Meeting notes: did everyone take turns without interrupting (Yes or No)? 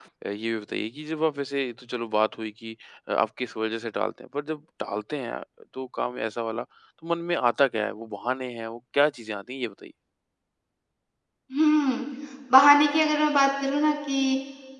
Yes